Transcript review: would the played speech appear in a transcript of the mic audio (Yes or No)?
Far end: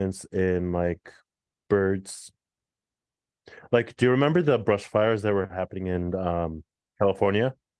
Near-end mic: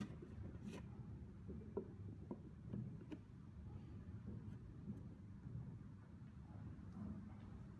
No